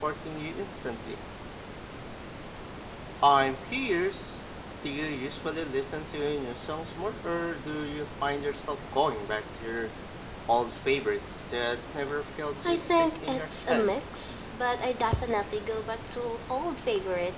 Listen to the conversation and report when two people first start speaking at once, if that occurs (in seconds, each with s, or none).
12.6 s